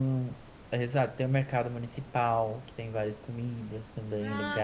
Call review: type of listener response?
taking over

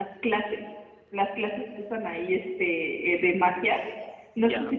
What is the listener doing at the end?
listening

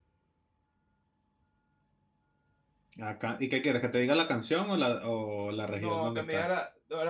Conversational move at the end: taking over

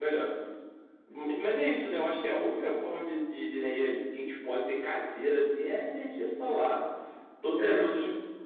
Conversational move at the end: listening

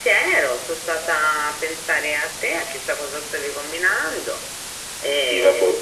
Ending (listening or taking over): taking over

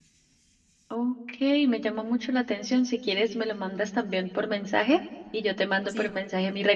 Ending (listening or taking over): listening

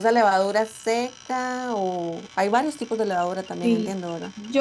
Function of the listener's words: taking over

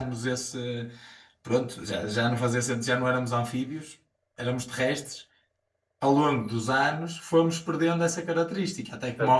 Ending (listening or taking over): taking over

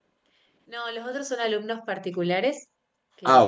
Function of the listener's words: listening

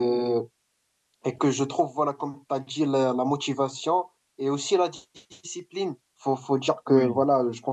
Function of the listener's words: listening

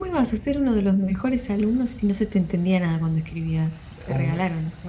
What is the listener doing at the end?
taking over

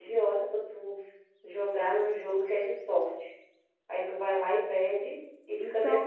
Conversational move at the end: taking over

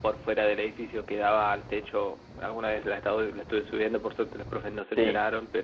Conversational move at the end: listening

